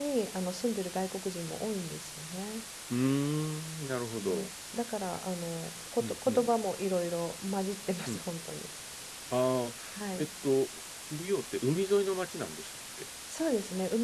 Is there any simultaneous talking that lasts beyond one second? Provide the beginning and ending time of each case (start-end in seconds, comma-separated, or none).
none